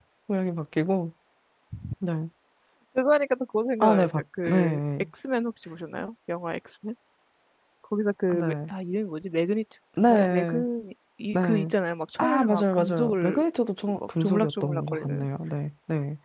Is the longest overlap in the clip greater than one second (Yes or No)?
Yes